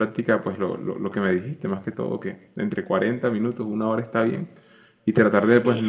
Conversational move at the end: listening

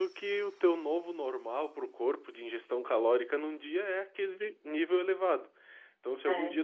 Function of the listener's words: listening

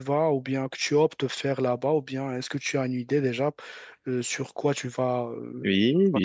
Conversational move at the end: taking over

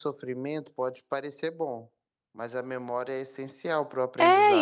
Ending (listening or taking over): taking over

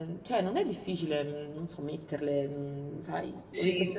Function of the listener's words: taking over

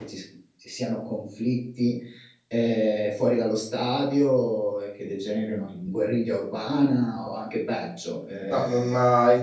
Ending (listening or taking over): taking over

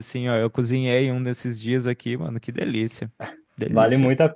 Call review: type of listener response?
taking over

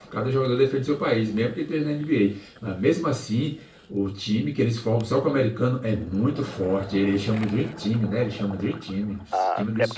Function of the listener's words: taking over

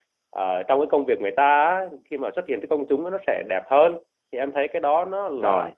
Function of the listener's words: listening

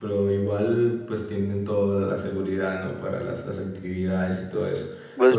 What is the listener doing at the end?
listening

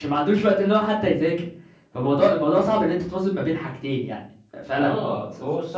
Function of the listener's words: taking over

